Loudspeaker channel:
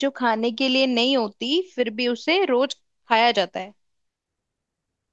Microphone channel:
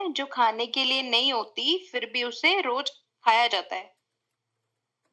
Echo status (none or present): present